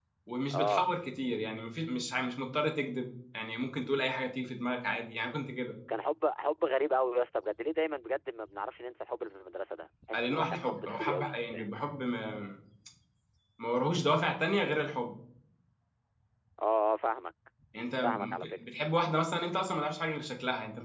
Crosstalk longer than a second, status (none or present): present